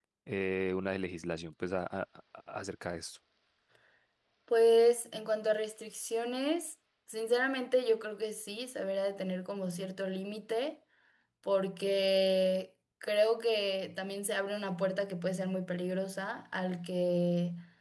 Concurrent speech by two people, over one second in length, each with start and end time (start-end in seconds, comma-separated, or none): none